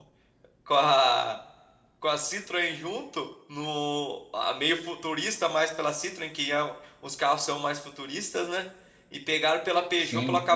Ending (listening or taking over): listening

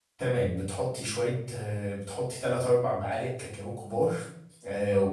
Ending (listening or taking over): listening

